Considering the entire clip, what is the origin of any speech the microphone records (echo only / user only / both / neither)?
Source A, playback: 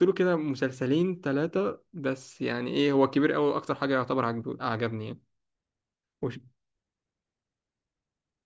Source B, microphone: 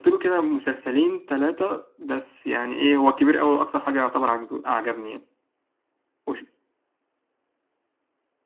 echo only